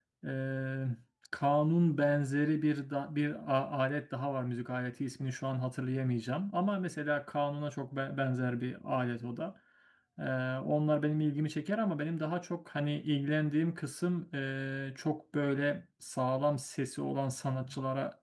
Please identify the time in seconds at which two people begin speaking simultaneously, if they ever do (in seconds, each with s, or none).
none